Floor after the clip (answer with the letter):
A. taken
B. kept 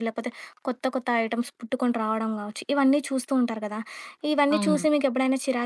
B